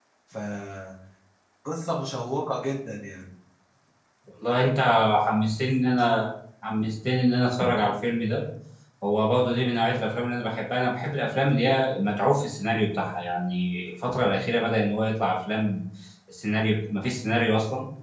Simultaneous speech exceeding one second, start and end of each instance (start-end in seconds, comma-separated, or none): none